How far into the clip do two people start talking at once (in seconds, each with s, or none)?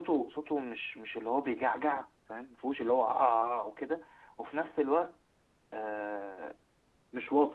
none